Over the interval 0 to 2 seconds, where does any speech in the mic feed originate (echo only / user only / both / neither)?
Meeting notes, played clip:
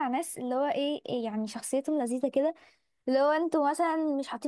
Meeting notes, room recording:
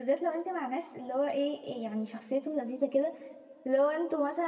echo only